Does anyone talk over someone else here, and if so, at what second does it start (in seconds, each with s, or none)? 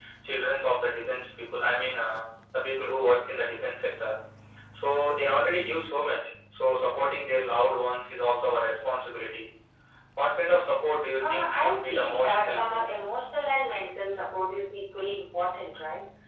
11.2 s